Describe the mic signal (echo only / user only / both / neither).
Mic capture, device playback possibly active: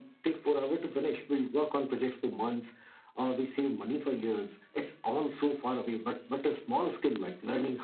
echo only